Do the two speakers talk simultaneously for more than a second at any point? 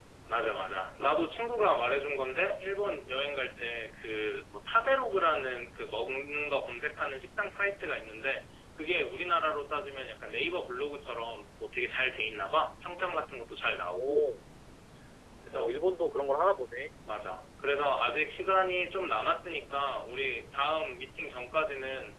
No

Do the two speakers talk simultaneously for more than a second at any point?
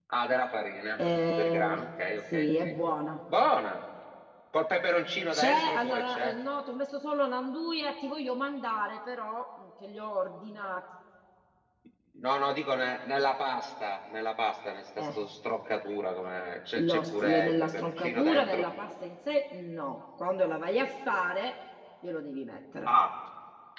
Yes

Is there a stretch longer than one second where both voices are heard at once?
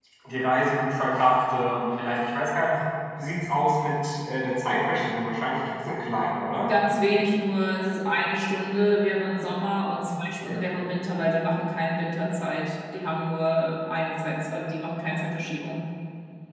No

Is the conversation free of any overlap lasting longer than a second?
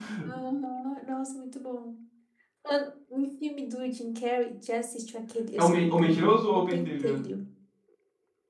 No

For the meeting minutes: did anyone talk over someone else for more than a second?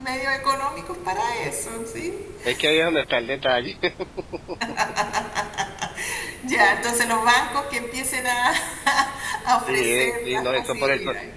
Yes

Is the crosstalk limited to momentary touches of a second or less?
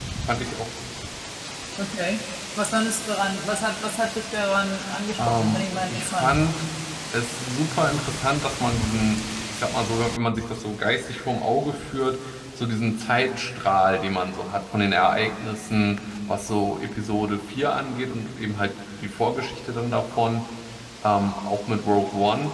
No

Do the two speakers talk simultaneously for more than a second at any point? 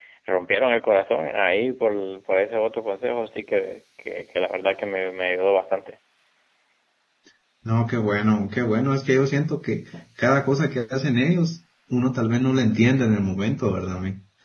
No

